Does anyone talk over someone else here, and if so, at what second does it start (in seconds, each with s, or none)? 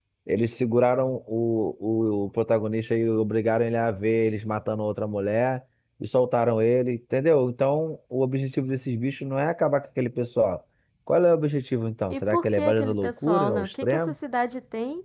12.1 s